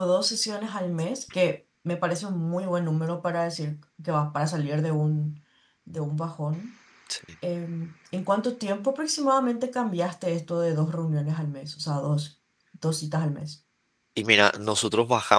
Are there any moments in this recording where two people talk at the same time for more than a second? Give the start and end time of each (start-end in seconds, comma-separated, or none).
none